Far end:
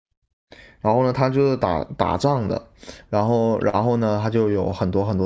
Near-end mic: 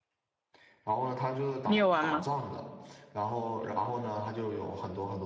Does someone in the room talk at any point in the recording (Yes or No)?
Yes